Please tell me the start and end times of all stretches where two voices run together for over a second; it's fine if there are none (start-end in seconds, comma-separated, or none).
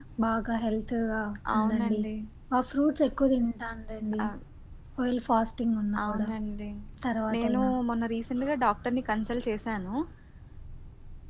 none